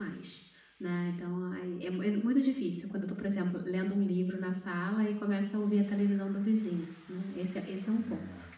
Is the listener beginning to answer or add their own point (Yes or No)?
No